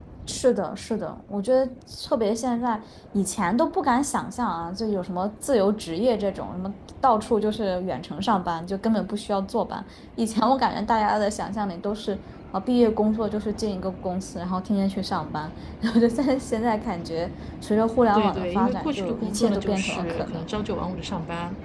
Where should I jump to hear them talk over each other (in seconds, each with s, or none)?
18.1 s